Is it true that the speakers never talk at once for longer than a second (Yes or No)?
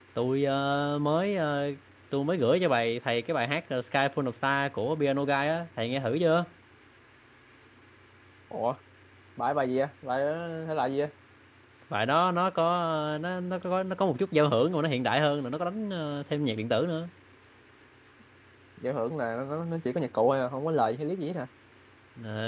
Yes